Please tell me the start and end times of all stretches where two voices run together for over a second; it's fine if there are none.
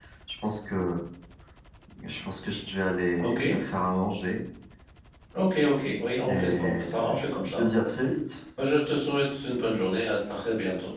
6.3-7.6

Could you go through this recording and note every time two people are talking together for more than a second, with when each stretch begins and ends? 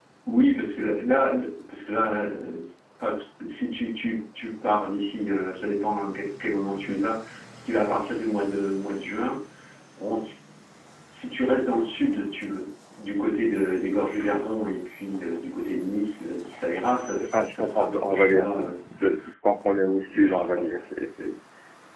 17.3-18.7

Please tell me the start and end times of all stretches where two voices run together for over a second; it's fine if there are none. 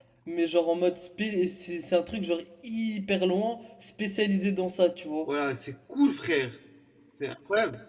none

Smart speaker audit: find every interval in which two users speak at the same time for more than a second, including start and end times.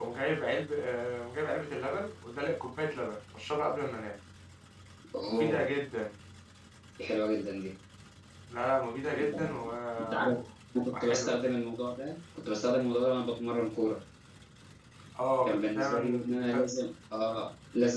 15.4-16.6

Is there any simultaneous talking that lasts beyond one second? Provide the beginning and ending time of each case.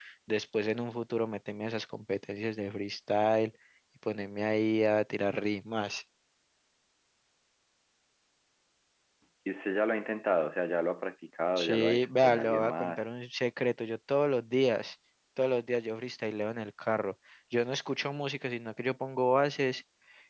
11.6-13.0

